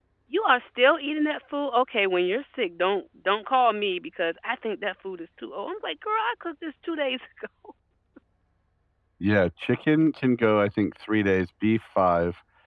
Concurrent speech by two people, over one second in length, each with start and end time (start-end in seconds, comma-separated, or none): none